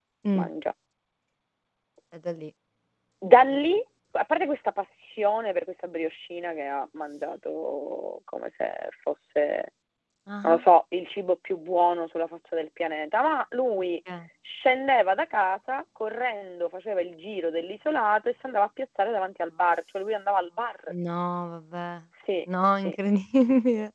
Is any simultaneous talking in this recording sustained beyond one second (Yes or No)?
No